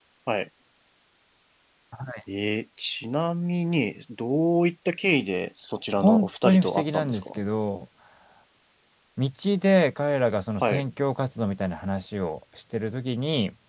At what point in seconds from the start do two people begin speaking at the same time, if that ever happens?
6.0 s

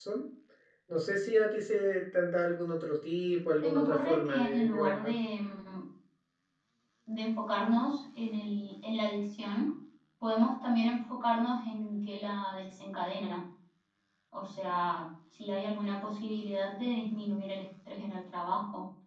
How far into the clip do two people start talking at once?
3.6 s

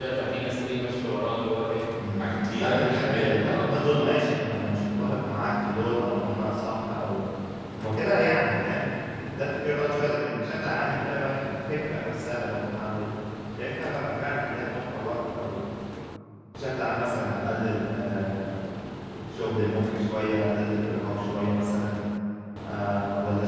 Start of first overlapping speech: 1.9 s

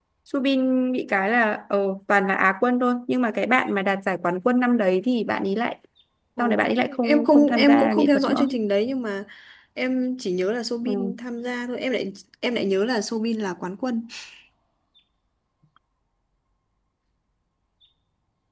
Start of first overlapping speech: 6.4 s

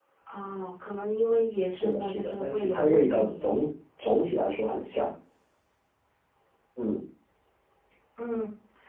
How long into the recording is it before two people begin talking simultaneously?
1.7 s

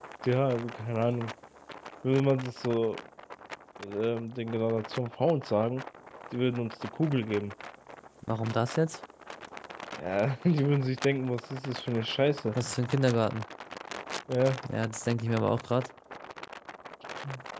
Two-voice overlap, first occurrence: none

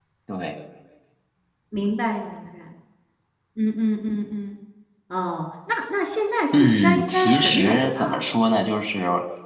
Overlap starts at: 6.5 s

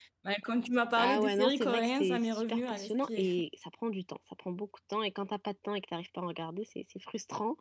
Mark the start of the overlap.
1.0 s

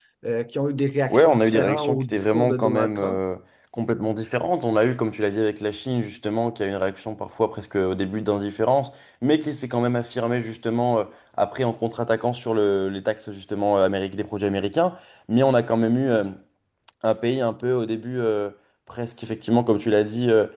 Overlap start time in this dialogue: 1.1 s

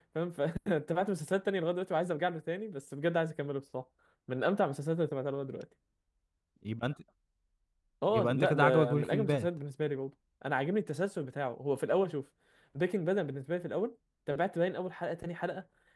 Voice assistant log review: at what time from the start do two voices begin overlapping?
8.1 s

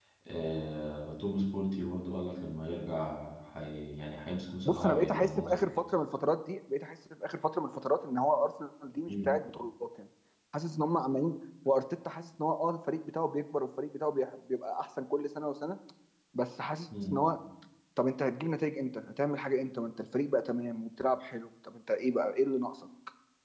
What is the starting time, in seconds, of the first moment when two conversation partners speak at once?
4.7 s

